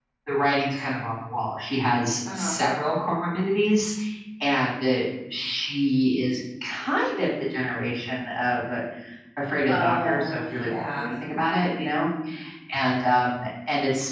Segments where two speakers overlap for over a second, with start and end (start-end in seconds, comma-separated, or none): 9.7-11.1